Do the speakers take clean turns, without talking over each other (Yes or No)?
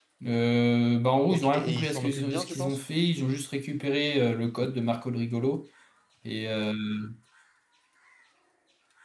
No